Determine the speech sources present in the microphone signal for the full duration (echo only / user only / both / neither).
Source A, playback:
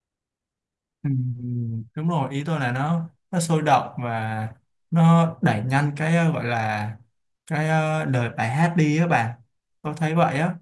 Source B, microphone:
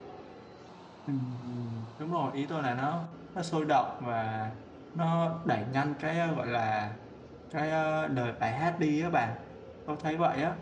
echo only